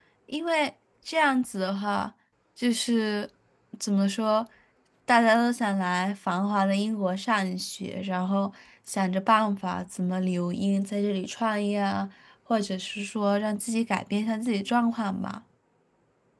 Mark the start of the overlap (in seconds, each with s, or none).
none